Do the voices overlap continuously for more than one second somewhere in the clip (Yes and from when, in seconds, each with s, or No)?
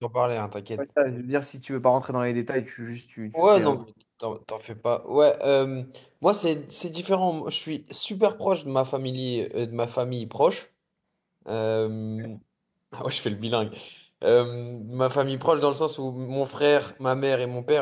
No